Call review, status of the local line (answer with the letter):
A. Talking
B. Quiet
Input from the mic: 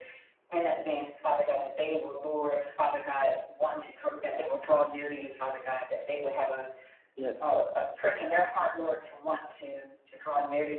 A